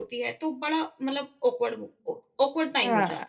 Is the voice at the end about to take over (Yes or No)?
No